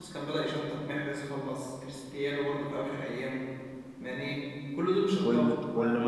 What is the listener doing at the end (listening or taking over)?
taking over